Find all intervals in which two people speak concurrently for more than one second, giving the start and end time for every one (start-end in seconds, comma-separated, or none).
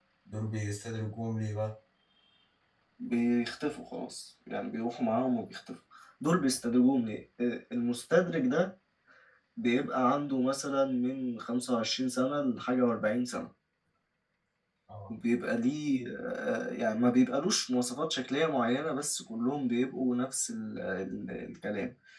none